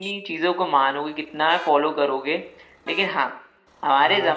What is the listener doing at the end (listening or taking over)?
listening